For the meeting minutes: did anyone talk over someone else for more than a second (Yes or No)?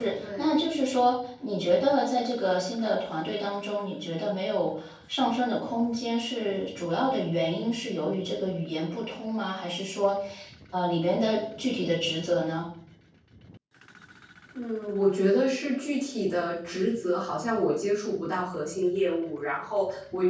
No